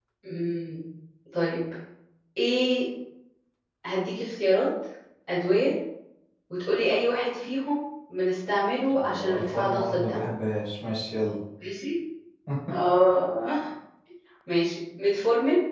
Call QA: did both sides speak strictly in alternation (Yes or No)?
No